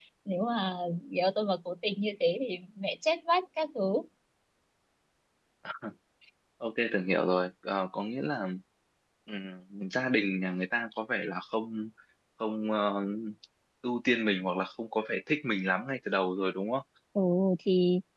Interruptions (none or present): none